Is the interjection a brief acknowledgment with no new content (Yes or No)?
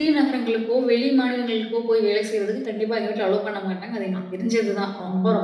No